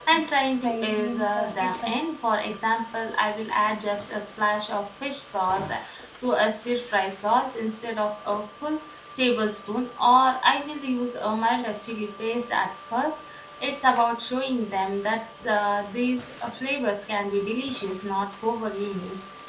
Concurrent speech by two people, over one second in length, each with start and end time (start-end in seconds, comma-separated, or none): 0.6-2.1